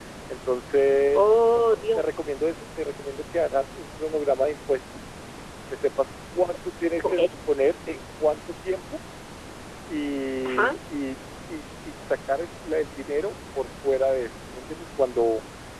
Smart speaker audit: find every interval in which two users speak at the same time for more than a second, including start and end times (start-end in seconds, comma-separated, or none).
none